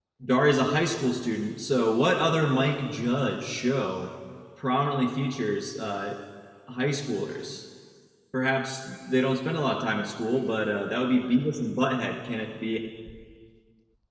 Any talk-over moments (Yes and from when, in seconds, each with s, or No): No